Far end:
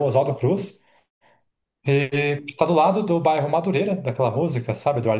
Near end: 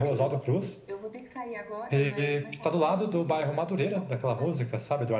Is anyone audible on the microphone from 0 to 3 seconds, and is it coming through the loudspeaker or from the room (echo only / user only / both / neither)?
both